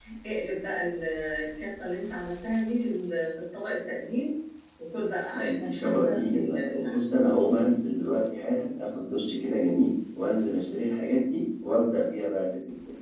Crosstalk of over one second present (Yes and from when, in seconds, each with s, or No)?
Yes, from 5.3 s